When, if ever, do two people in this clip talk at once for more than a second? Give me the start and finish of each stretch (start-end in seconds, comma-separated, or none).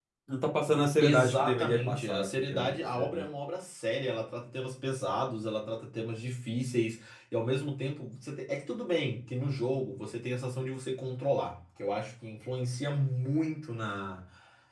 1.0-3.2